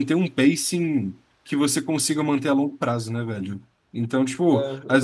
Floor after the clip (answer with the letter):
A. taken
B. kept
B